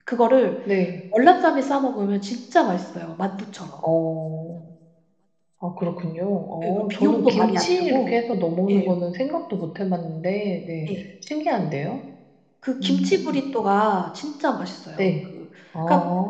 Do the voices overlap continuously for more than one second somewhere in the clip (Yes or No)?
Yes